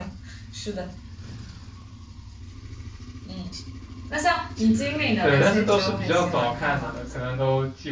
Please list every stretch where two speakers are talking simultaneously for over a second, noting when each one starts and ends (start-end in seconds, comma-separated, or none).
5.2-6.9